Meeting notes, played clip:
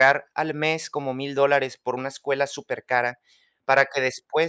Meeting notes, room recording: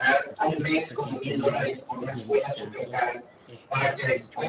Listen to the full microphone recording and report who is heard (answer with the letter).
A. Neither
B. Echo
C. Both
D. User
C